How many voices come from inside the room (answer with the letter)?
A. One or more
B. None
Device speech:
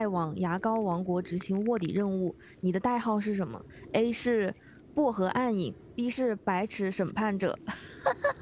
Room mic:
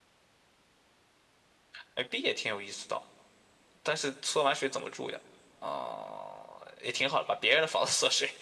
A